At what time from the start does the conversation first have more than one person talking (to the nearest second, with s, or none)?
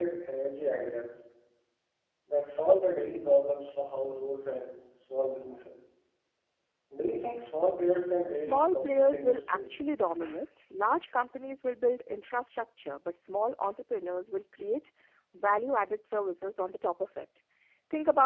8 s